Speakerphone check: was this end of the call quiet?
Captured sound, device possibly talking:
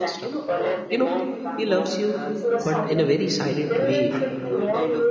No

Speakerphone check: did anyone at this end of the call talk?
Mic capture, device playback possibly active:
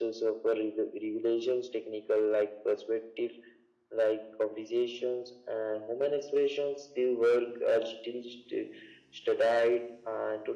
No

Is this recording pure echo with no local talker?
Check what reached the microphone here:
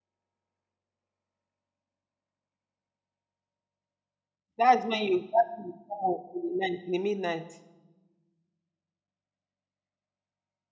No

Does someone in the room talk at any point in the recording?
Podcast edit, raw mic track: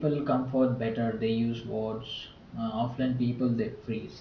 Yes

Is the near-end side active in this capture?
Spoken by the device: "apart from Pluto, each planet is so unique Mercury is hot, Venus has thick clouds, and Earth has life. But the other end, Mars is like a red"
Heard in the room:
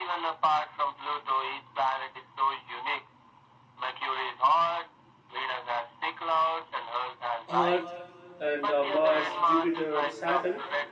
Yes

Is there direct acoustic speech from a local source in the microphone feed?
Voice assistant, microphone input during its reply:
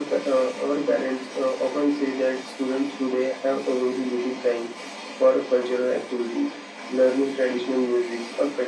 No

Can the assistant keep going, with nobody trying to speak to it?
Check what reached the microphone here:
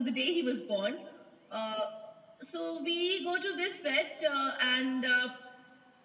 Yes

